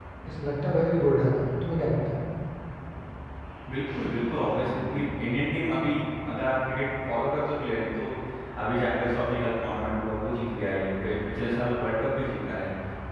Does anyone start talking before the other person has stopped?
No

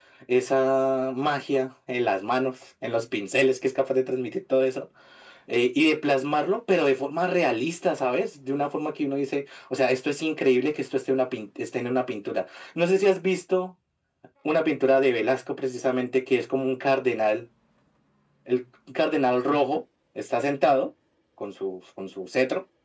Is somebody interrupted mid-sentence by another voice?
No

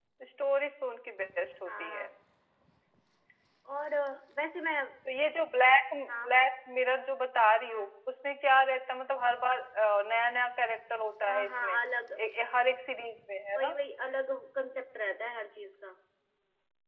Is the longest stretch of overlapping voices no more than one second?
Yes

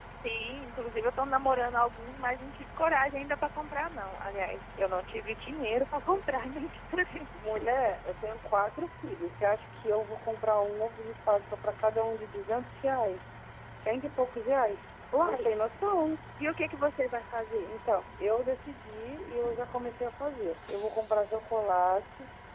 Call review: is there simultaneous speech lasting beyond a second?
No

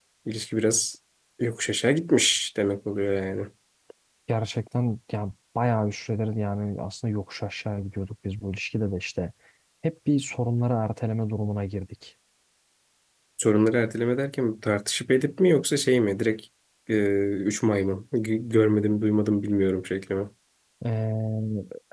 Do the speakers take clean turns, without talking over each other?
Yes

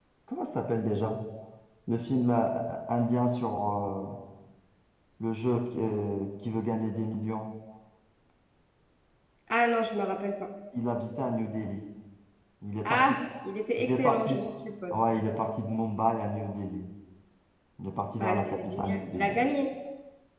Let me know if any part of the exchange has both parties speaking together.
Yes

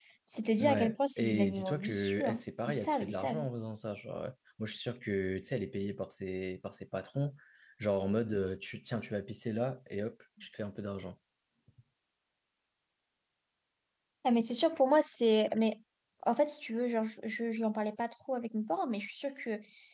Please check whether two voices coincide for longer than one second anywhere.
Yes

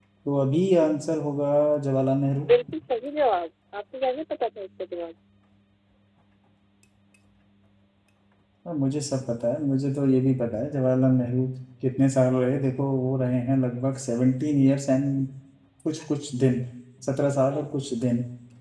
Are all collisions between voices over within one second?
Yes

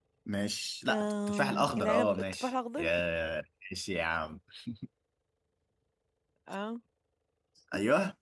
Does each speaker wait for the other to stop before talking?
No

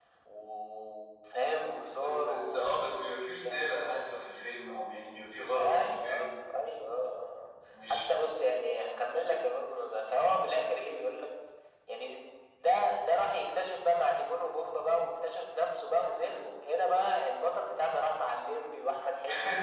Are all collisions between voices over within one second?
No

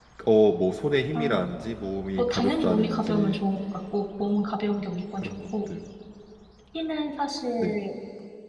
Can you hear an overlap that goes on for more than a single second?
Yes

